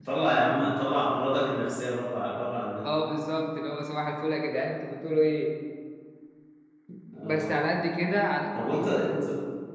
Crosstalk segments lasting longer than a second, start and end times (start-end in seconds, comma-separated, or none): none